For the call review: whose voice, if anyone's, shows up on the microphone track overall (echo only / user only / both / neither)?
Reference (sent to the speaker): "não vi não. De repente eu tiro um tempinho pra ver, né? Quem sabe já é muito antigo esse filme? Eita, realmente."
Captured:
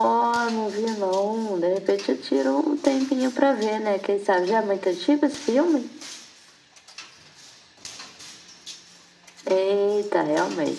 echo only